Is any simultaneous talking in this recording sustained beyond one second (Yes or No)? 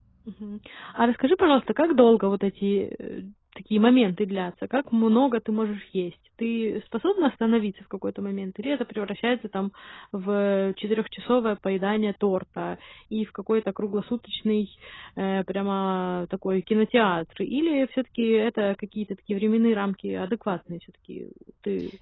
No